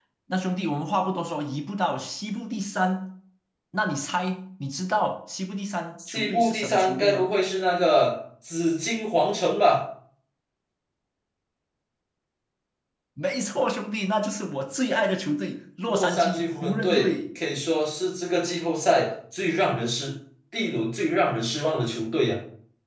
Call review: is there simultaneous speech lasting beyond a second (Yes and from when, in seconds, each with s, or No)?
Yes, from 6.1 s